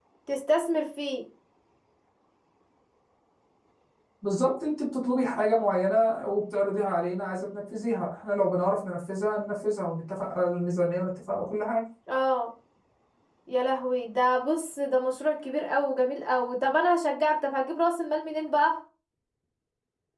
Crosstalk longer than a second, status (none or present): none